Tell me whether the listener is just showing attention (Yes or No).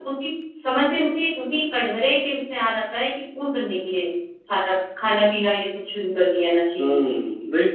No